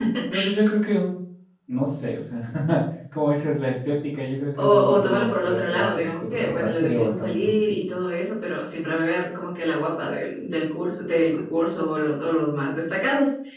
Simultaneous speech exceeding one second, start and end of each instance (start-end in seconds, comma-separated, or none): 4.6-7.8